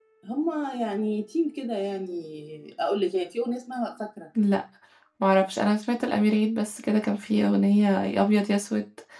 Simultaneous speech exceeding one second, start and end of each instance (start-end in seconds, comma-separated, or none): none